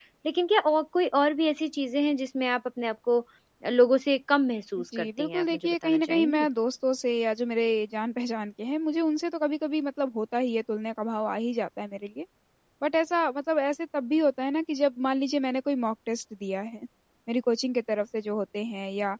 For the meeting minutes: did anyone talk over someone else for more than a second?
Yes, from 4.9 s

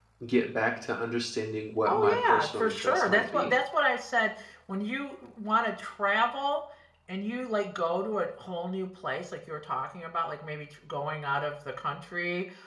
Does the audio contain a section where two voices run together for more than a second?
Yes, from 1.9 s

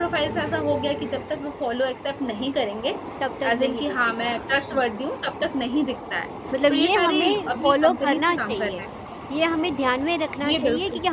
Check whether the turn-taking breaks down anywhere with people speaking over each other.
Yes, from 3.4 s

